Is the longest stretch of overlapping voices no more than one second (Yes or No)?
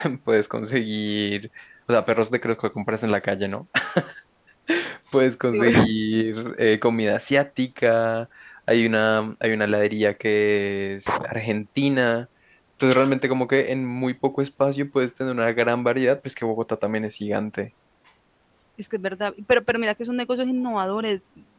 Yes